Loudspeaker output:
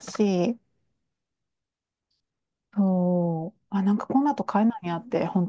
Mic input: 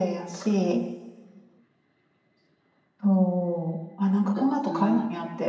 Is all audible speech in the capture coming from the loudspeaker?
No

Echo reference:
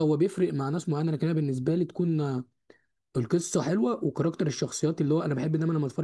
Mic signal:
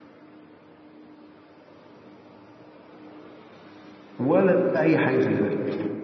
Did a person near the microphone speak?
Yes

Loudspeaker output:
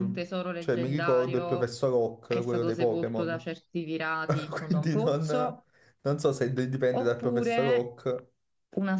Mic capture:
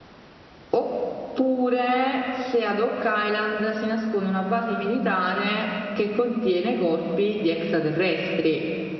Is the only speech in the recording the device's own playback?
No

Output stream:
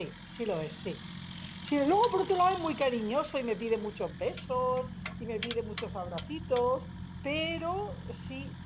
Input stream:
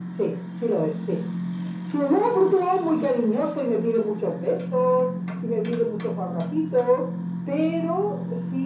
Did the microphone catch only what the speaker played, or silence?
Yes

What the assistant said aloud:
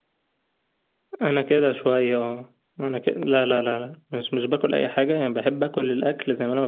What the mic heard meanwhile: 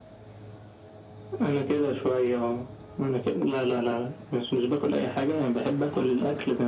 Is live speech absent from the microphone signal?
Yes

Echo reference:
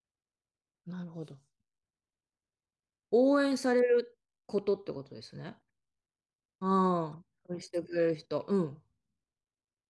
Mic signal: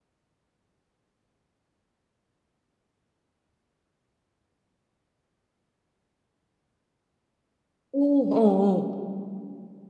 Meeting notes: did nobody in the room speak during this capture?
No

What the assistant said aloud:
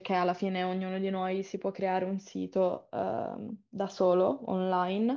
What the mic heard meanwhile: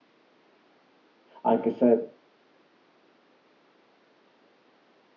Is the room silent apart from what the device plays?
No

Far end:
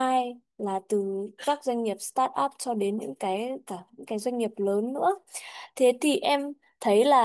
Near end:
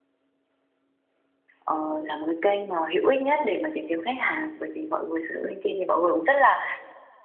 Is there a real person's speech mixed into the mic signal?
Yes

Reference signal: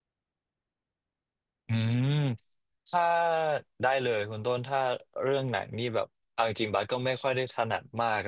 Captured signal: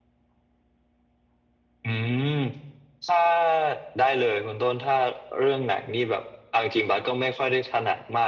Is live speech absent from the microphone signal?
Yes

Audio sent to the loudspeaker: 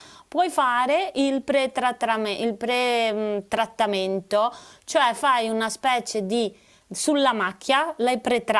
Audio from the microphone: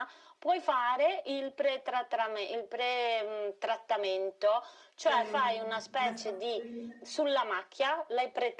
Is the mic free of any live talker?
No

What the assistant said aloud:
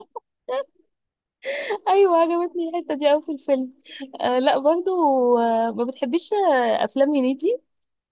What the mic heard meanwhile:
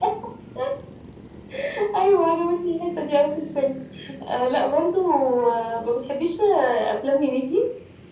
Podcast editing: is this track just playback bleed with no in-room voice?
Yes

